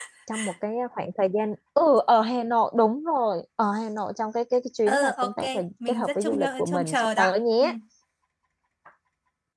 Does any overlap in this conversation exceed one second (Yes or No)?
Yes